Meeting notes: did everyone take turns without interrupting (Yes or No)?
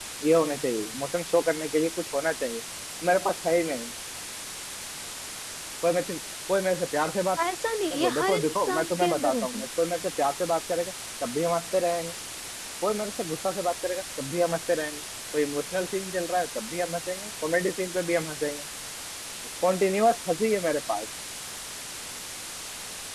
No